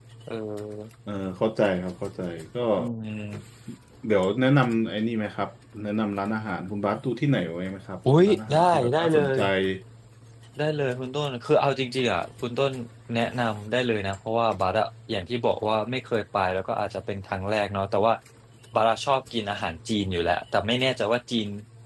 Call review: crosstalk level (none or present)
present